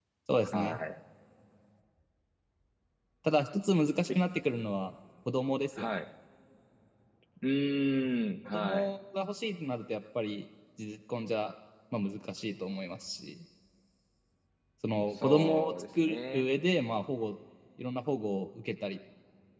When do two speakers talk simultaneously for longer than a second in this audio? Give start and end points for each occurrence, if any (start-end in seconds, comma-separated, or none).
15.1-16.5